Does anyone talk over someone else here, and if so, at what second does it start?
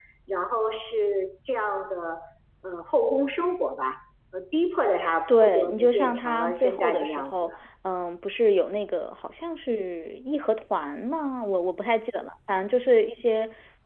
5 s

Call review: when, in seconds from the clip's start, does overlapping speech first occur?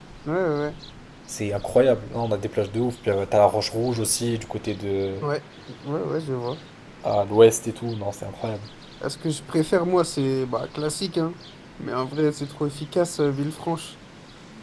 none

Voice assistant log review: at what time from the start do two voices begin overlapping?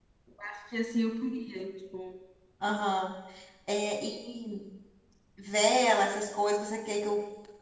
none

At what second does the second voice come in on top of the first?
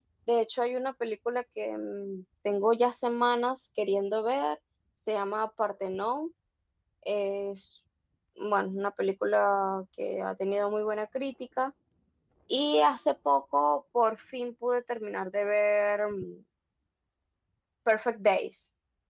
none

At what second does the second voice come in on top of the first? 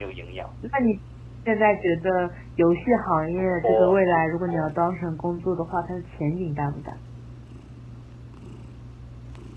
3 s

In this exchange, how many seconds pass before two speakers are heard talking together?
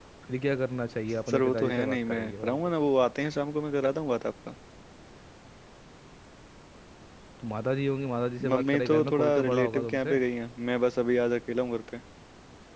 1 s

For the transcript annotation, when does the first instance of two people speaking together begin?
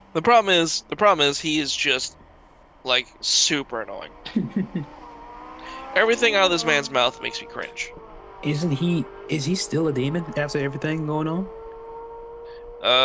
none

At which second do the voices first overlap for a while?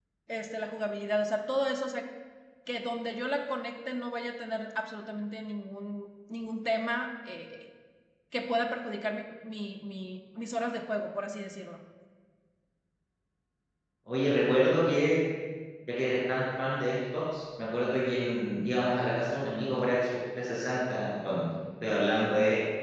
none

